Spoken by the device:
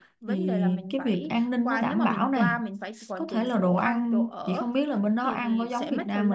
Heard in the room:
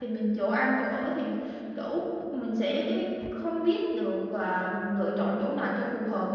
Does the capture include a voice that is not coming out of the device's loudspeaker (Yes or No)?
Yes